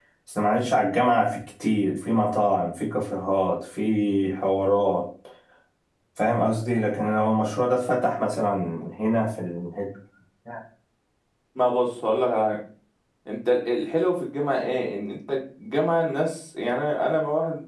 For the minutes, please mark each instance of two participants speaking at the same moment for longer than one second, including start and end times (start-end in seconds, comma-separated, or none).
none